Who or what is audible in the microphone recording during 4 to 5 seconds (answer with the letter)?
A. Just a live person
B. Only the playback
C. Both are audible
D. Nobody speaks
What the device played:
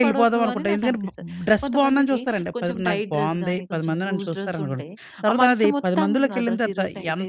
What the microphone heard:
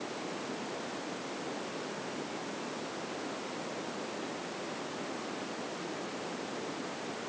D